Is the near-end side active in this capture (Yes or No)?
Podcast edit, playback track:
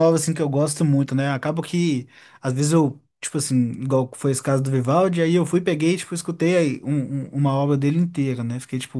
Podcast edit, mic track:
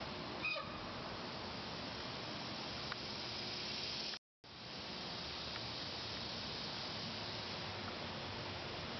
No